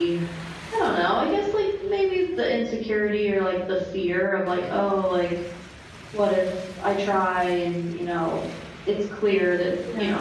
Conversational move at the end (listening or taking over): listening